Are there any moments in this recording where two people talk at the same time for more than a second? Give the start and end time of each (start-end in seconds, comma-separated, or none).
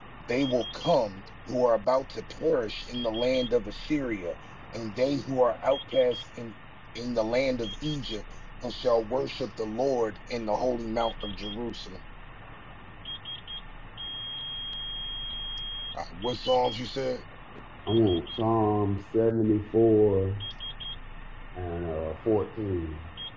none